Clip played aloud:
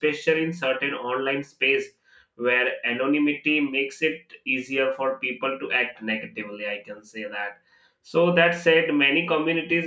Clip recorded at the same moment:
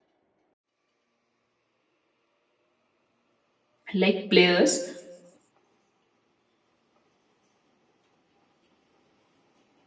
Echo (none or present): none